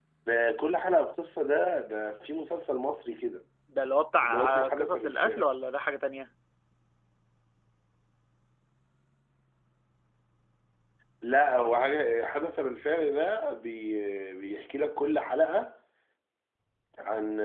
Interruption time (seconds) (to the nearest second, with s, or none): 4 s